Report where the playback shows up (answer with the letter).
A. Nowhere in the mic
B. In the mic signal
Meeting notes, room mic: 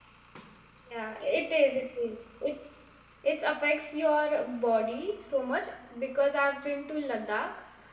A